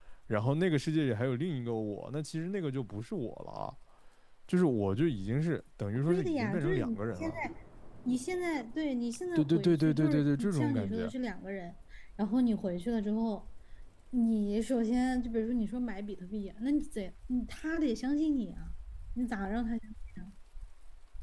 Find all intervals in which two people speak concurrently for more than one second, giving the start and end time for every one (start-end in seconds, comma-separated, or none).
6.1-7.4, 9.3-11.1